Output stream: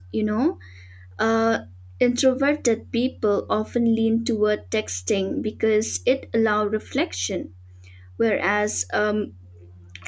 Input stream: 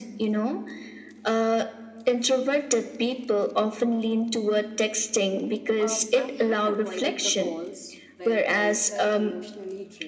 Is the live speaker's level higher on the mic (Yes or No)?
No